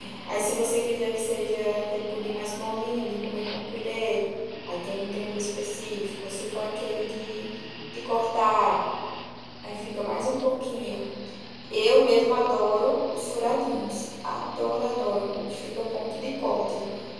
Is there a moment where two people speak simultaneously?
No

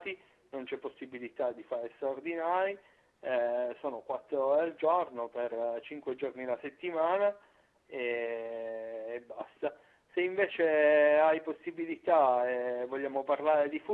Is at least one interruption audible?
No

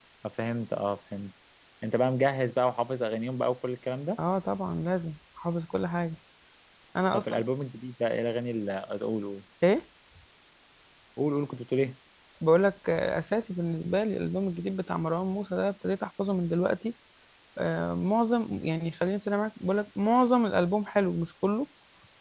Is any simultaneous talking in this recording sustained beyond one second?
No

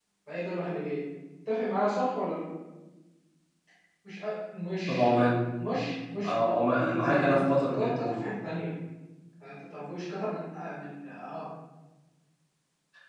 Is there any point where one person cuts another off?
Yes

